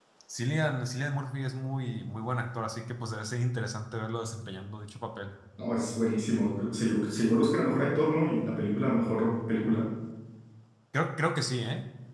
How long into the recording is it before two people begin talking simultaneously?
none

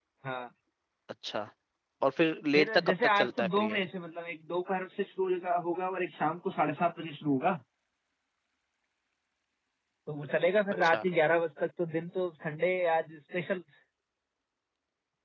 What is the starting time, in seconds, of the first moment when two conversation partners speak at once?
2.5 s

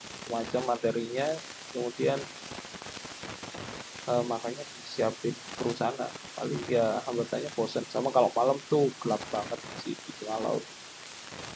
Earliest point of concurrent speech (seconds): none

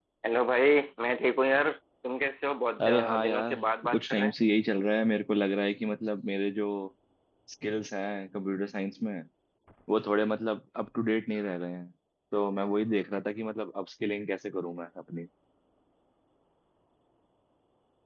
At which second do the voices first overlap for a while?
2.8 s

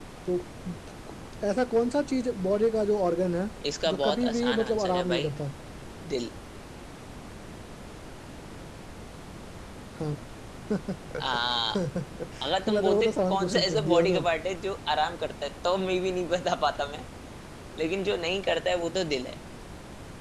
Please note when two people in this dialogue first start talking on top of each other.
3.9 s

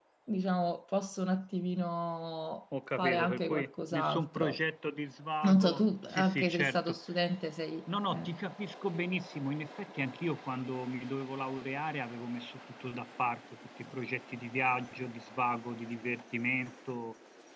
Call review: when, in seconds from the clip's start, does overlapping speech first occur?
3.0 s

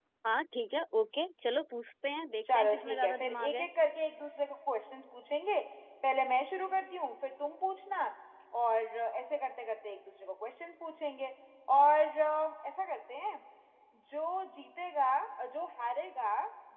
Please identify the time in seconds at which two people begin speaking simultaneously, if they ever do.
2.4 s

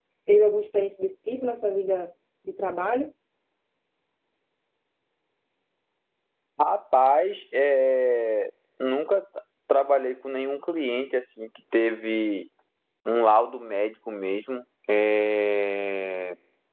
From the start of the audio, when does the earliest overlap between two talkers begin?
none

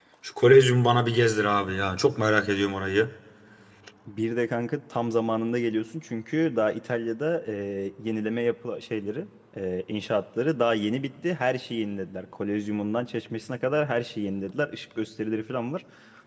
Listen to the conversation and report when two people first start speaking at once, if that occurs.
none

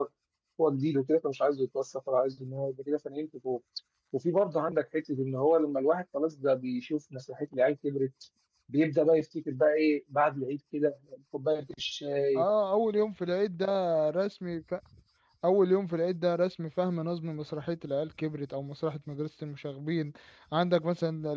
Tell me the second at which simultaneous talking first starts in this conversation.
none

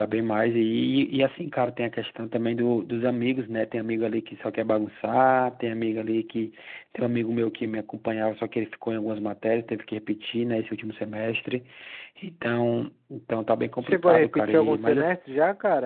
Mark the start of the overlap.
13.8 s

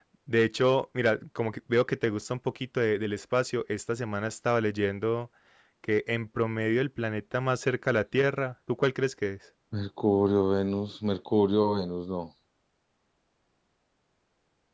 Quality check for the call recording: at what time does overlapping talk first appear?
none

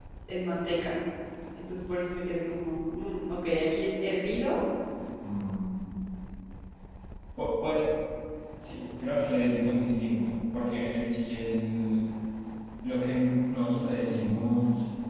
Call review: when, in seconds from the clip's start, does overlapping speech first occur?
none

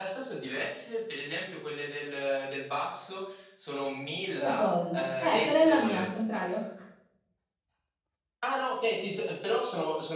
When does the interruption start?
4.4 s

